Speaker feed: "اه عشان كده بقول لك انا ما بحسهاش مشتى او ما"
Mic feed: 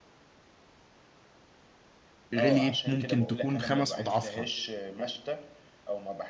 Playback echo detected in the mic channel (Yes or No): Yes